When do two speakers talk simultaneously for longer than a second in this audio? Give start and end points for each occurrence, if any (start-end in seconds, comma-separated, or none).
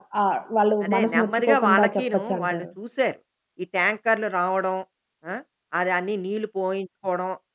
0.8-2.6